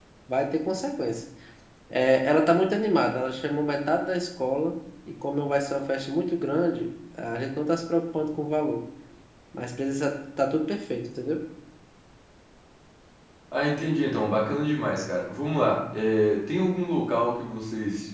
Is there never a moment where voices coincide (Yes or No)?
Yes